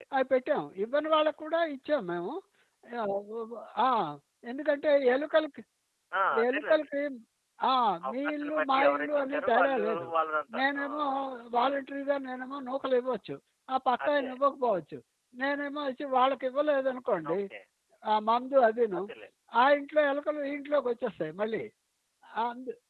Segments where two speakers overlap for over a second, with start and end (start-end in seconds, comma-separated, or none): 8.1-10.1